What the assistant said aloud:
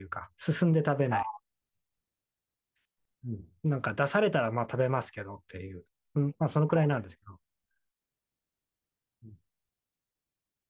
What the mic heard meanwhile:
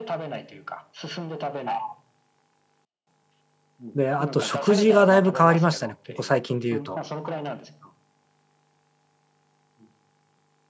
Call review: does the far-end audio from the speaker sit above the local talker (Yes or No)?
No